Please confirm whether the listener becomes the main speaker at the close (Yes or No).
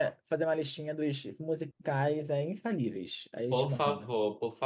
Yes